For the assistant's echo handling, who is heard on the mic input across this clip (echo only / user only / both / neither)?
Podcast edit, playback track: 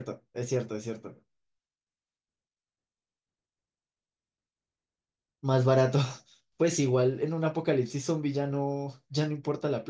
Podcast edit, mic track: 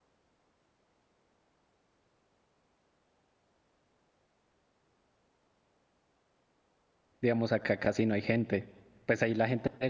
user only